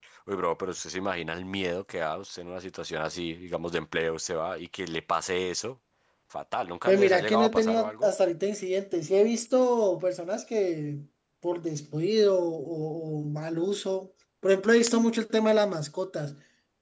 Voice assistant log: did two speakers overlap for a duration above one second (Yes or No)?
Yes